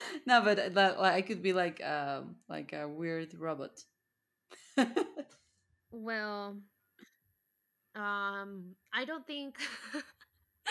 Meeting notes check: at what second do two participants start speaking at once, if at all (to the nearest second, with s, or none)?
none